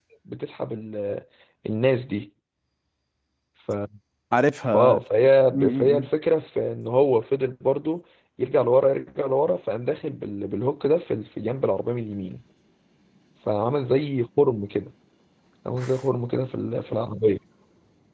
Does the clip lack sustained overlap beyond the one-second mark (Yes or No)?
Yes